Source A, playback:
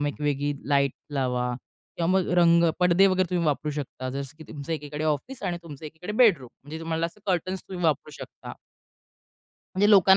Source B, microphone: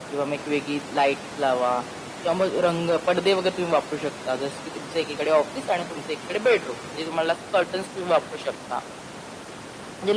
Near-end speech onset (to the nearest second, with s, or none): none